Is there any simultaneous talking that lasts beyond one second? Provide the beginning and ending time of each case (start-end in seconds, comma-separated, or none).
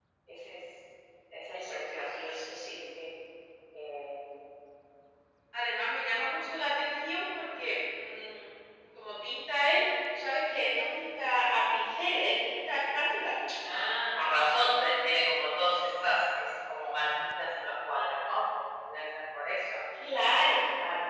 1.5-2.8